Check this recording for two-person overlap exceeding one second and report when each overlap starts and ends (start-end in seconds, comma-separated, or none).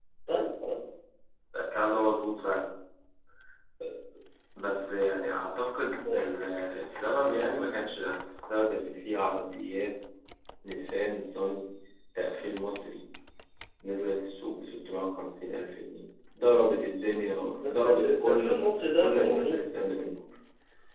17.7-19.7